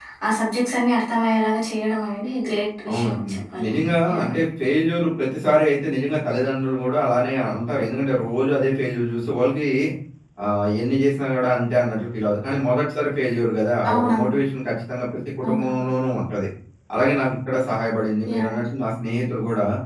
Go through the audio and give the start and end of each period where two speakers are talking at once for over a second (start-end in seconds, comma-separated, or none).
2.9-4.3